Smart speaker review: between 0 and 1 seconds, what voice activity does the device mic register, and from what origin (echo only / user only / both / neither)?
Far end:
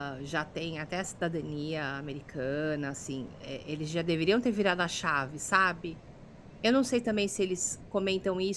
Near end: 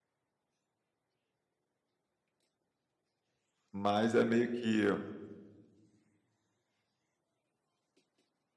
neither